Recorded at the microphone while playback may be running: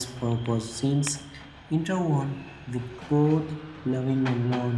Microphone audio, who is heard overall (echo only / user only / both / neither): echo only